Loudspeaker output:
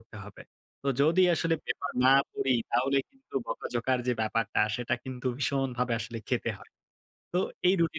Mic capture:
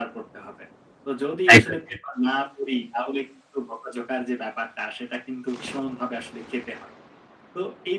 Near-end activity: present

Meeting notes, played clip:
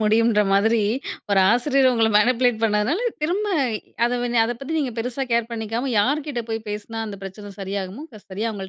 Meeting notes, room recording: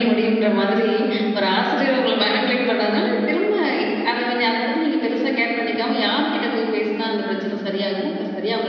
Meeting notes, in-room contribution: none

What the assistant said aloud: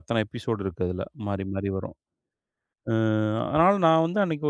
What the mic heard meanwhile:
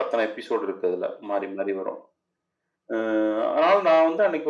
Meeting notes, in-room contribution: none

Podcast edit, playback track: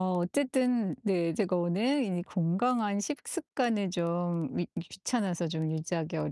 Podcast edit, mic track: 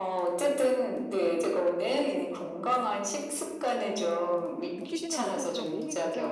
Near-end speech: present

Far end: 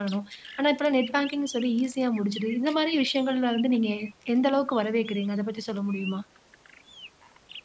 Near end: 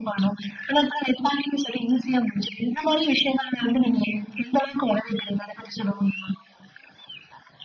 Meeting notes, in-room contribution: none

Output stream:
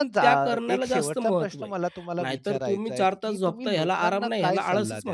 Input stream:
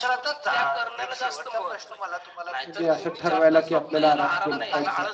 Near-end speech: present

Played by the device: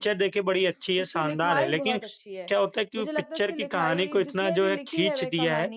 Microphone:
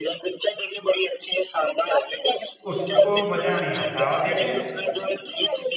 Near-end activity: present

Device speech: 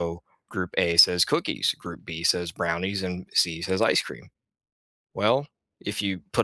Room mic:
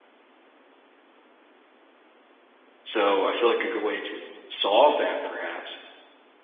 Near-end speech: present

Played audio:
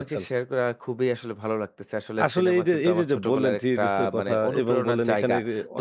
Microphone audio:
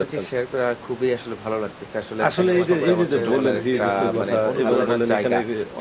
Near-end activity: present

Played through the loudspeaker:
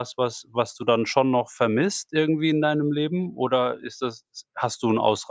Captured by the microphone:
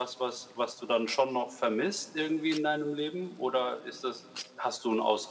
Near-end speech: none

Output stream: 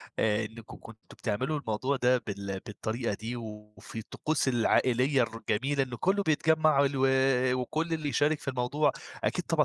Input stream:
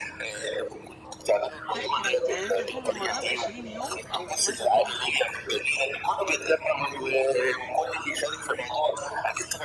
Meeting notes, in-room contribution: present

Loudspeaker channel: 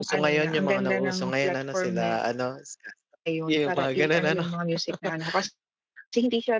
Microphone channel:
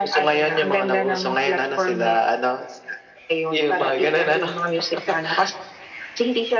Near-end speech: none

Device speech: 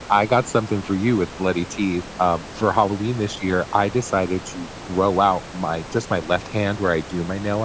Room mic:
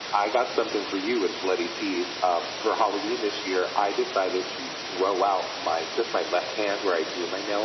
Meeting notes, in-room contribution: none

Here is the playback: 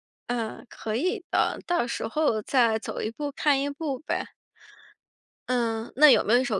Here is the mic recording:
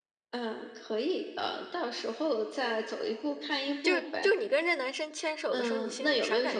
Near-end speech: present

